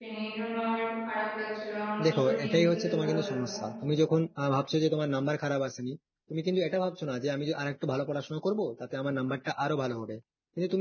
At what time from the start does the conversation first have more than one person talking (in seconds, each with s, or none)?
2.0 s